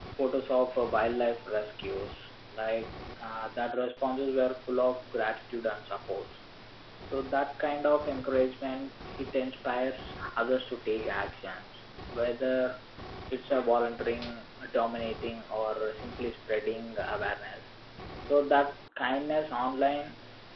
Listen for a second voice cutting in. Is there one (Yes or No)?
No